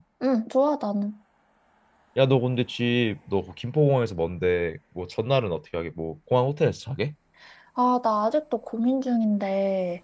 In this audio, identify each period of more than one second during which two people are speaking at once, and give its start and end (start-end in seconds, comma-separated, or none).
none